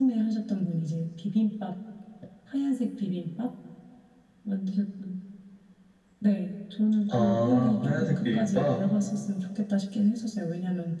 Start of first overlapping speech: 7 s

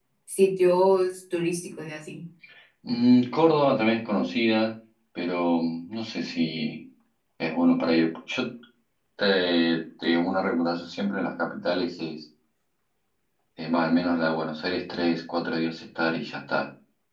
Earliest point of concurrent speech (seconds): none

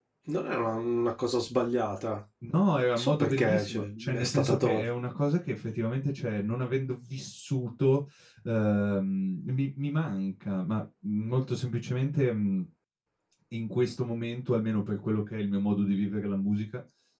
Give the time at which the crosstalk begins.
3 s

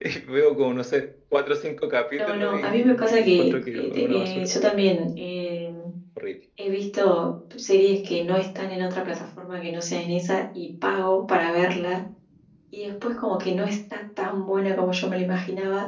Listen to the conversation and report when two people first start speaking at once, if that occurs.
2 s

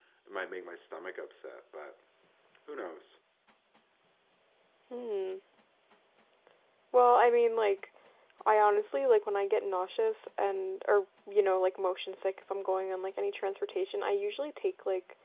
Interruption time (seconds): none

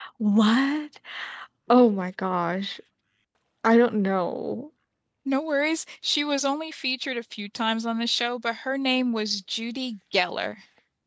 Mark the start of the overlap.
none

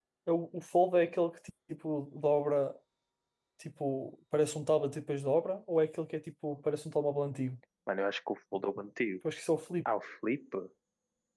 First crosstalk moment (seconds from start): none

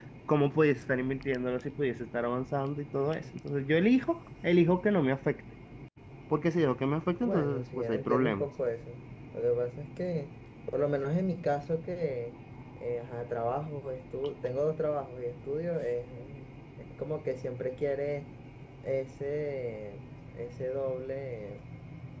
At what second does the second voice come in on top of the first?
7 s

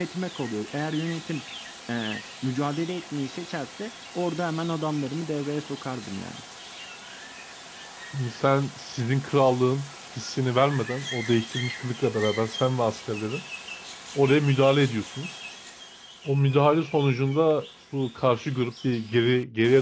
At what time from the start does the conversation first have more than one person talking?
none

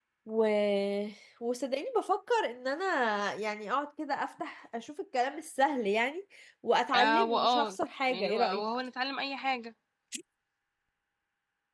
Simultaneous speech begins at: 7 s

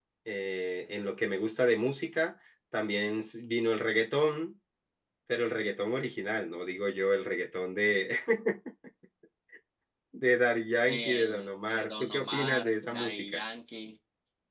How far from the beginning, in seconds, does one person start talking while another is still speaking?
11 s

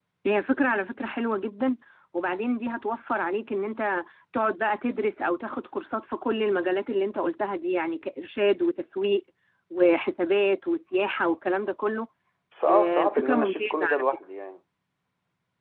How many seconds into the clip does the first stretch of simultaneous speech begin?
13 s

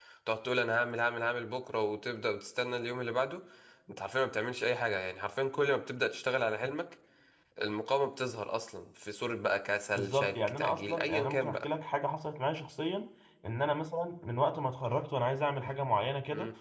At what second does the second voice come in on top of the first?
10 s

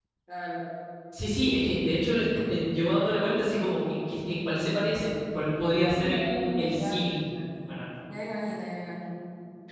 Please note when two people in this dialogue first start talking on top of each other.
6 s

